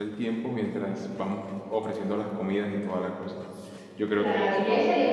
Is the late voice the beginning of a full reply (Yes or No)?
Yes